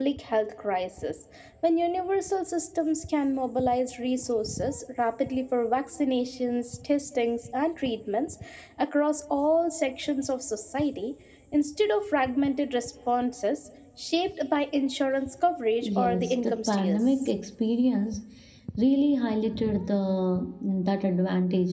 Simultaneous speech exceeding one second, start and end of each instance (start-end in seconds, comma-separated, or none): 15.9-17.3